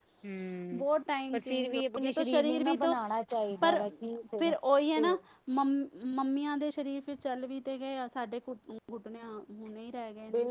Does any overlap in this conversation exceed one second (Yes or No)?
Yes